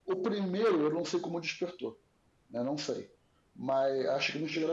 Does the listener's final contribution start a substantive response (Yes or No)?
No